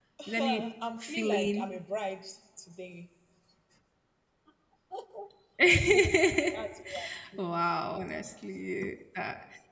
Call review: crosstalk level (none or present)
present